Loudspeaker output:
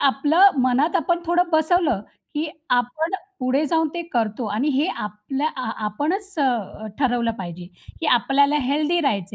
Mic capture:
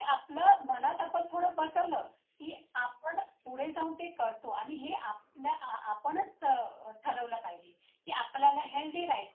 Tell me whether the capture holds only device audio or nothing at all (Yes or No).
Yes